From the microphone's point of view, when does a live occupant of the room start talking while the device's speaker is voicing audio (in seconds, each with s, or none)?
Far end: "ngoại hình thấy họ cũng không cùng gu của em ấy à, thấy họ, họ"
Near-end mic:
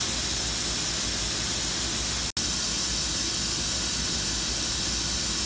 none